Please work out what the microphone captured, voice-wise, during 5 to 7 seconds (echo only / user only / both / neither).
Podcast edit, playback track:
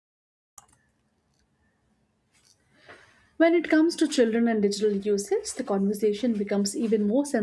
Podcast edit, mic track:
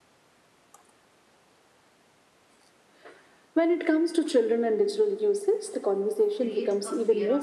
both